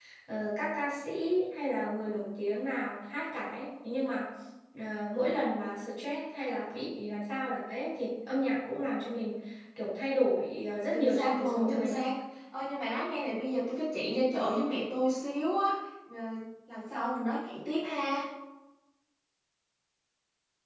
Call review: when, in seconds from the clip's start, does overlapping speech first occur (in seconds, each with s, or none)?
10.7 s